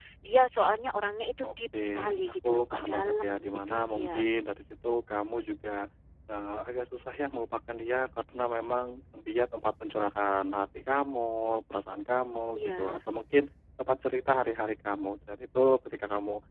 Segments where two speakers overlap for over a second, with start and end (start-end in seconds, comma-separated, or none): 1.4-4.3